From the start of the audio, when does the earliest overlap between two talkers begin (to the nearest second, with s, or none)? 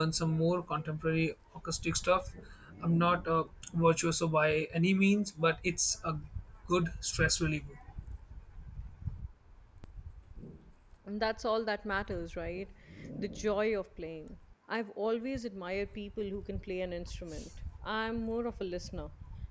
none